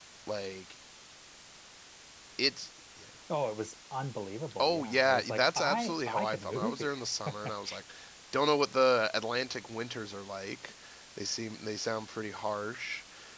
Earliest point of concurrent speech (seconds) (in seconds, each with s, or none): 4.6 s